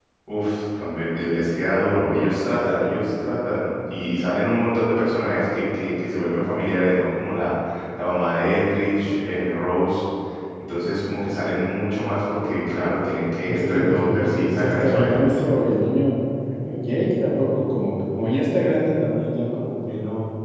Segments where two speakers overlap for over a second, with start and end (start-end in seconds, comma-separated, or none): 13.5-15.3